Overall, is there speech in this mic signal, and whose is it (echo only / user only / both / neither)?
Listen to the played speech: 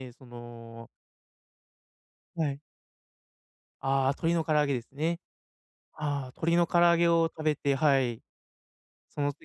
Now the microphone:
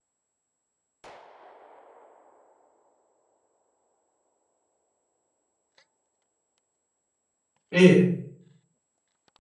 user only